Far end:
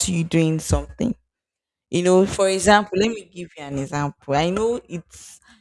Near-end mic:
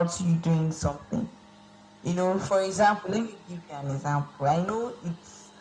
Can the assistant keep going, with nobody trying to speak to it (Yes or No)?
Yes